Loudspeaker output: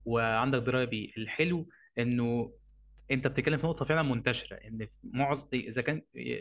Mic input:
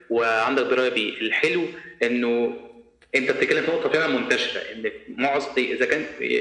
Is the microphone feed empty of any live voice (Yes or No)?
Yes